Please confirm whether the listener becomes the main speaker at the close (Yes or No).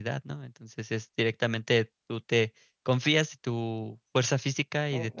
Yes